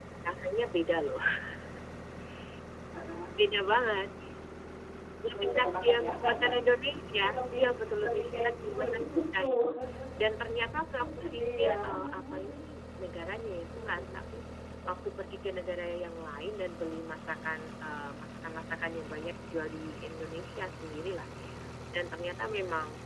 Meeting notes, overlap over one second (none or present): present